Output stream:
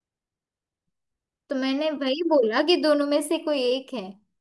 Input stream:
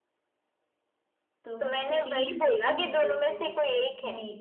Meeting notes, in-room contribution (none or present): present